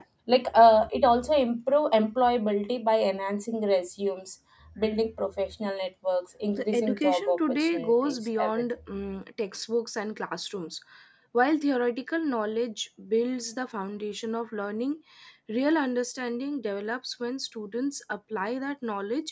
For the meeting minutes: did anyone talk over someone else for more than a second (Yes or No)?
Yes